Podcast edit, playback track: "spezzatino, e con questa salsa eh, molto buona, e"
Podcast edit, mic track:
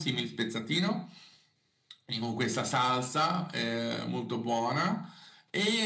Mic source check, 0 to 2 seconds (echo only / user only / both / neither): echo only